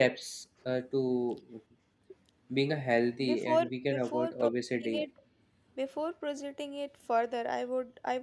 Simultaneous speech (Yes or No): Yes